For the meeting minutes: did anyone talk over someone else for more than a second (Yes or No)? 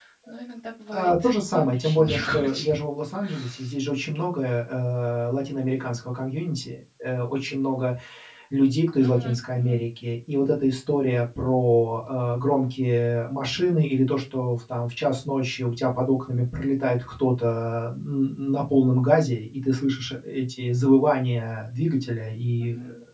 Yes